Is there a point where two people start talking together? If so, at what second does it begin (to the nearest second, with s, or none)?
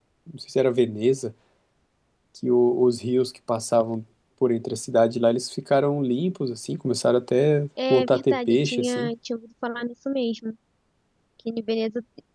8 s